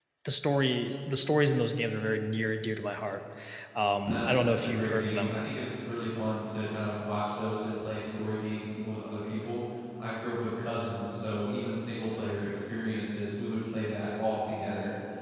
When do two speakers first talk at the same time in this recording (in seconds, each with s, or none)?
4.1 s